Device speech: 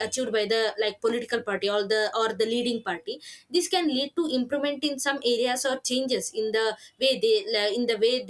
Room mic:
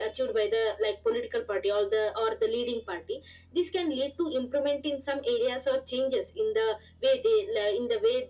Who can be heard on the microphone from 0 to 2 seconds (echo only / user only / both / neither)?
echo only